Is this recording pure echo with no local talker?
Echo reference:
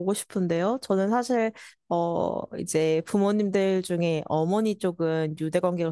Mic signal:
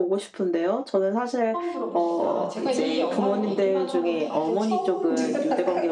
No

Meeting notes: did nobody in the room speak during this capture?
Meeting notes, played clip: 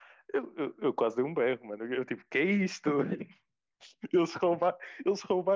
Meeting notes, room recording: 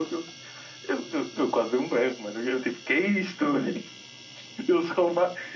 Yes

